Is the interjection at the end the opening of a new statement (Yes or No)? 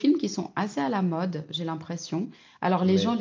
Yes